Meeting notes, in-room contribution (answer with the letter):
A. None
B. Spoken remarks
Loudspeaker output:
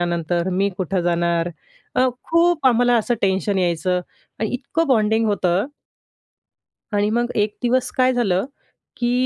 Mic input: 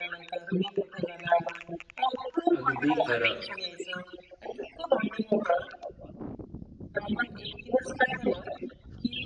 B